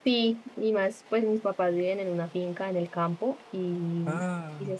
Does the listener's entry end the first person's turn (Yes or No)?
No